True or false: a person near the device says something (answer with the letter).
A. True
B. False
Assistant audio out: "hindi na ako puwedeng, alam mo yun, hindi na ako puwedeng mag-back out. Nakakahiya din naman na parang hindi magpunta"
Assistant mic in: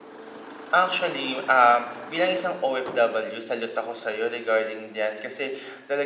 A